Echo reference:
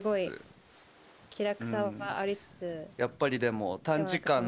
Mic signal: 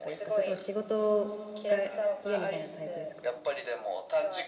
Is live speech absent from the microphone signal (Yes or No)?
No